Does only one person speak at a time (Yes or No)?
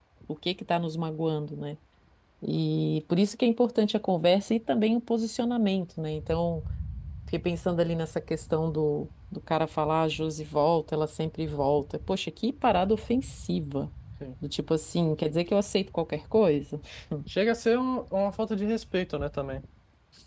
Yes